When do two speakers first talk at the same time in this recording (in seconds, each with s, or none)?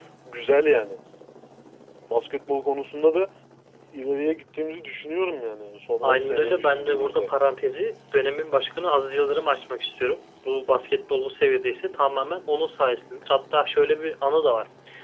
6.0 s